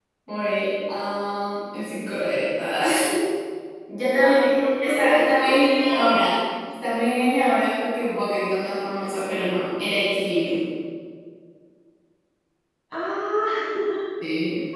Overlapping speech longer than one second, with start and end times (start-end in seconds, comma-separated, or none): 4.2-6.1